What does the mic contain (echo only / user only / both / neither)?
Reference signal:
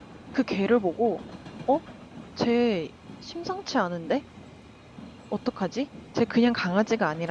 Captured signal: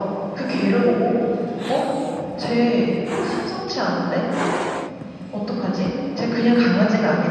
echo only